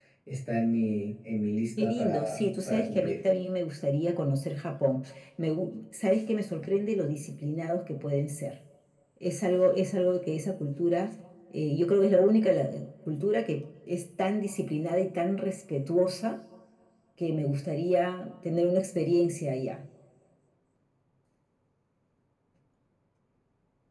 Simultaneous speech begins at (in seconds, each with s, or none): 1.8 s